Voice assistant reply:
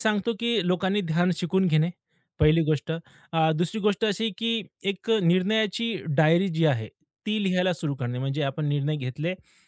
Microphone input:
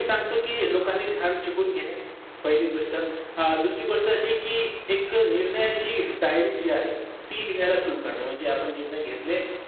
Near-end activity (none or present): none